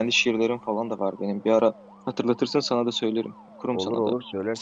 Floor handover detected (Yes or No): Yes